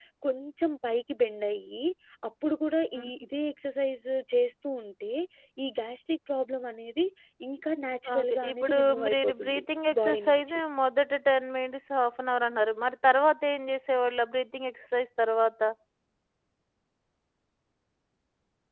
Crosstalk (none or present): present